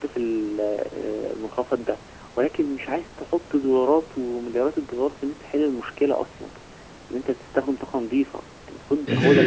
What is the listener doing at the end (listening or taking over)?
taking over